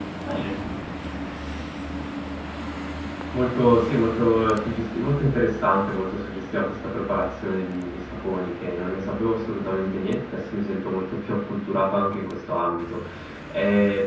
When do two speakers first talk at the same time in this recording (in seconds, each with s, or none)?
none